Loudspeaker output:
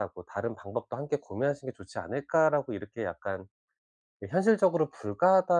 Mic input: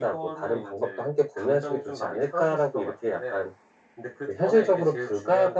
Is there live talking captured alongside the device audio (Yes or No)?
Yes